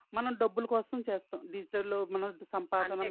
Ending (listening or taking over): taking over